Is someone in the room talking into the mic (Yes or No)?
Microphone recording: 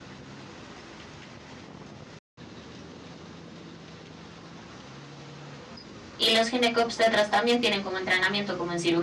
Yes